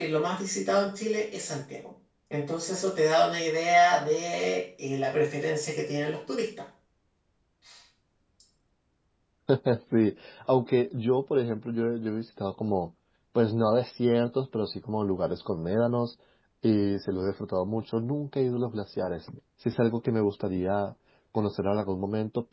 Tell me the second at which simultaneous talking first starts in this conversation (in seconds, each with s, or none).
none